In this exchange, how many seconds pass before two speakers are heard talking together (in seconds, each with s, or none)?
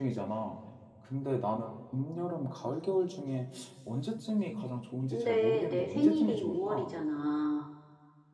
5.1 s